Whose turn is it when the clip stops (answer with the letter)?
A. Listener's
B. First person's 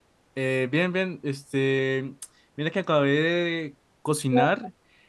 B